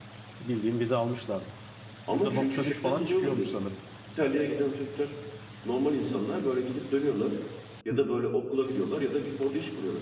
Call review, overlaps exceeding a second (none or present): present